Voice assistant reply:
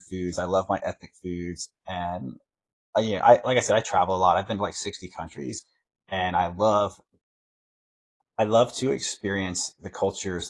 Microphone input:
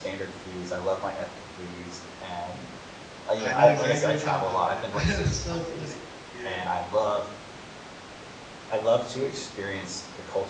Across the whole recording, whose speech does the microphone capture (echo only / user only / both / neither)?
both